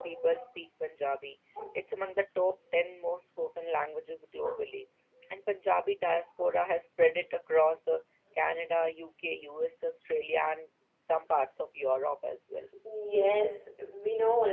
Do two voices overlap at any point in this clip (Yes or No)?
No